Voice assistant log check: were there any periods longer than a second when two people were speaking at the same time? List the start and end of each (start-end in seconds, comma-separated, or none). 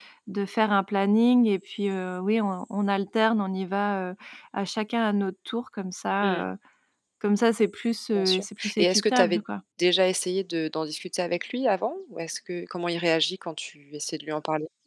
8.2-9.4